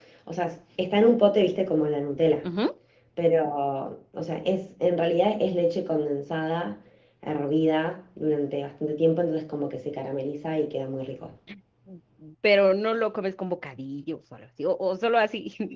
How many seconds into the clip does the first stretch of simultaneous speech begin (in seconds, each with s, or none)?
none